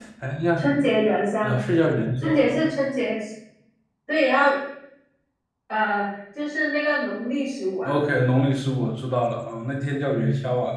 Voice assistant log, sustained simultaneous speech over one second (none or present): none